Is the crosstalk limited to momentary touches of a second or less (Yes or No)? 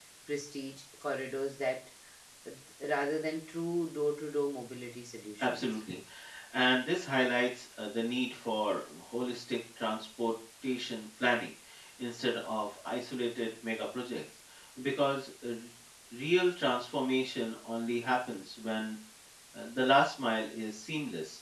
Yes